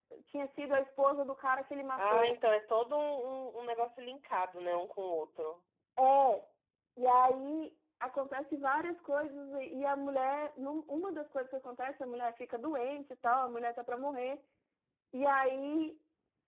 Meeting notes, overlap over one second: none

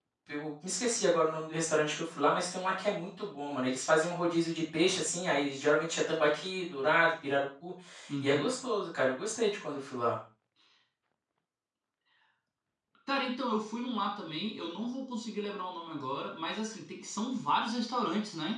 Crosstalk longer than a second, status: none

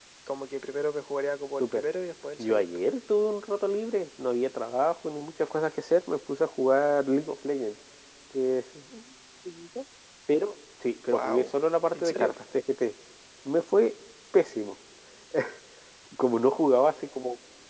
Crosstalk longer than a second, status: none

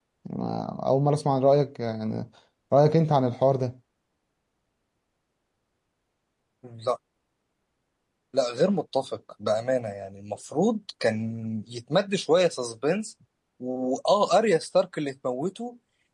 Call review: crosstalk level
none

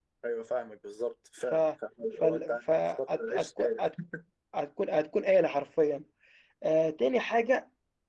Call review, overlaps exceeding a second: present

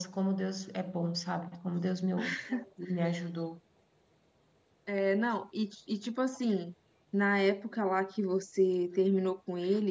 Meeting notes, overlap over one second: none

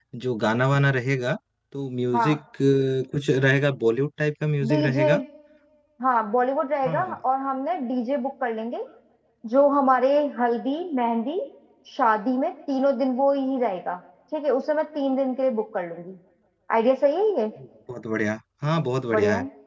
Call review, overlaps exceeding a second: none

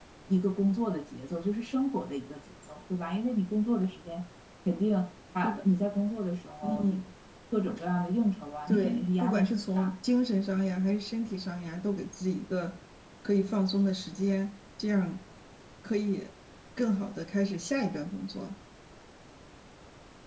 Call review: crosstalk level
present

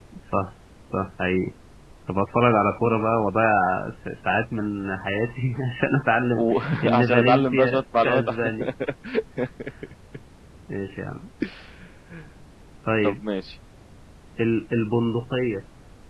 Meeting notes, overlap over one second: present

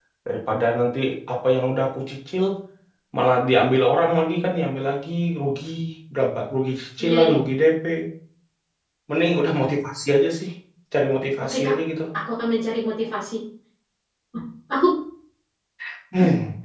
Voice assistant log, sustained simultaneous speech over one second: none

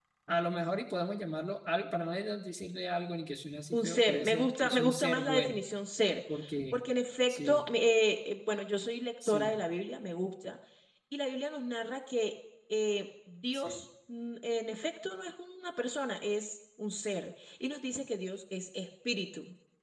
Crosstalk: present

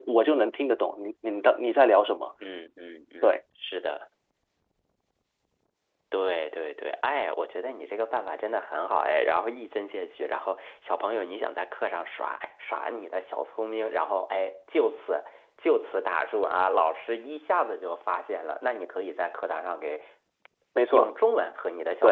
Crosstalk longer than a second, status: none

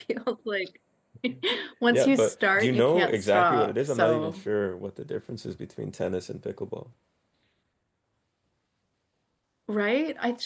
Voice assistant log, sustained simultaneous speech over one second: present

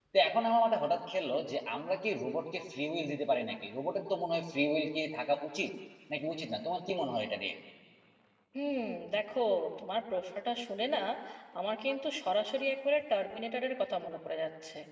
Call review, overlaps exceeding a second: none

